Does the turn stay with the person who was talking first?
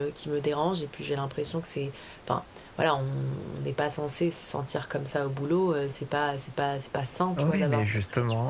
No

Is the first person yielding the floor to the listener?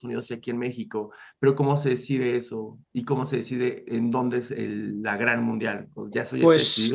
Yes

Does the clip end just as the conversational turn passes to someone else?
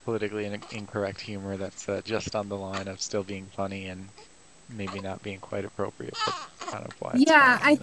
Yes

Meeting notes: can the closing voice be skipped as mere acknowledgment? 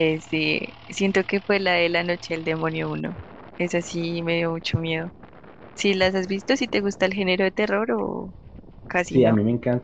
No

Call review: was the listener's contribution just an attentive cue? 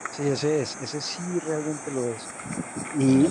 No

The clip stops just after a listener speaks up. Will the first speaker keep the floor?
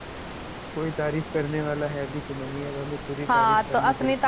No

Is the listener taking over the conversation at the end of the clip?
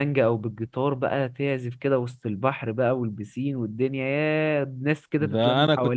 Yes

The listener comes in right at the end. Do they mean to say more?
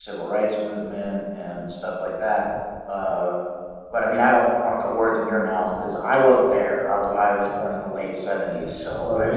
Yes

